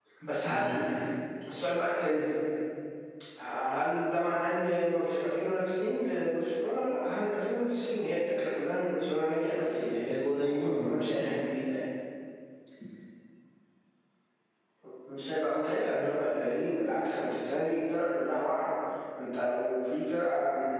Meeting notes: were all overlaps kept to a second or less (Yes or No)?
No